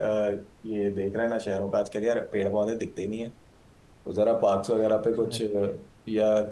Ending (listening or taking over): listening